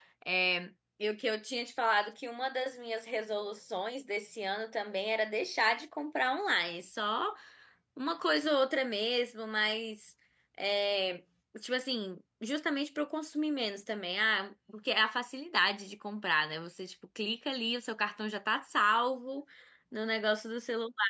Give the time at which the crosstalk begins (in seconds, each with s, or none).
none